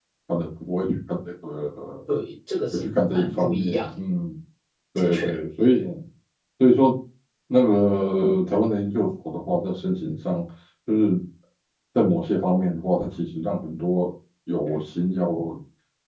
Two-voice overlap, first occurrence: 2.7 s

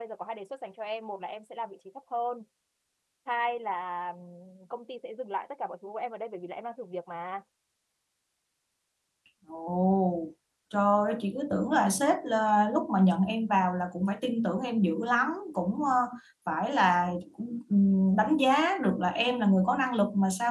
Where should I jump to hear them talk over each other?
none

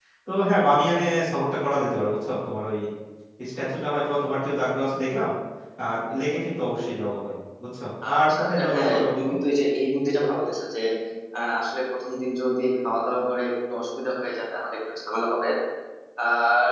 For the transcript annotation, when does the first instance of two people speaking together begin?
8.0 s

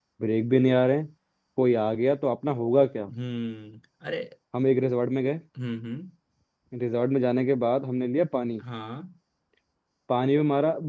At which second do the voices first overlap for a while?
none

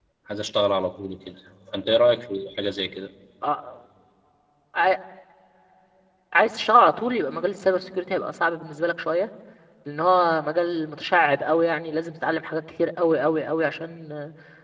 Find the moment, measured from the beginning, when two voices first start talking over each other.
none

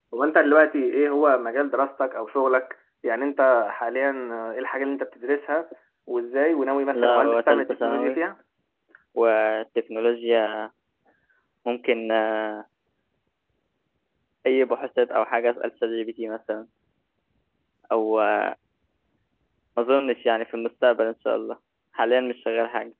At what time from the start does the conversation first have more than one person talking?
6.9 s

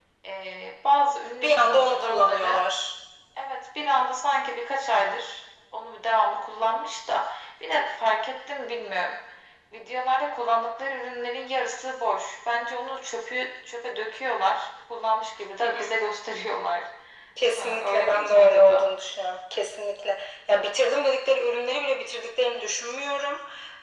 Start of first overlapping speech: 1.4 s

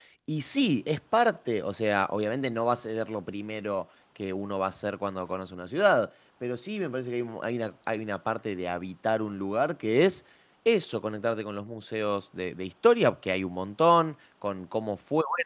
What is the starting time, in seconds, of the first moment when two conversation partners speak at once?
none

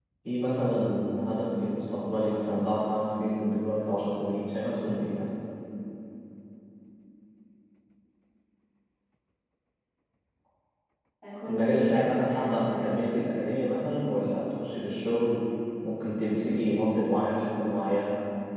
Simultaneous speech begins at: 11.5 s

